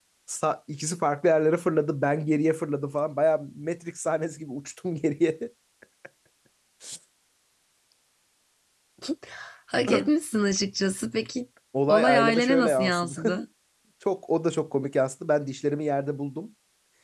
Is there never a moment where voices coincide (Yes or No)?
No